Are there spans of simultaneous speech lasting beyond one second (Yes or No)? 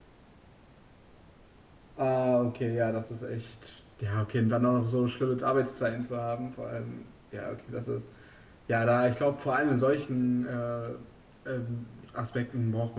No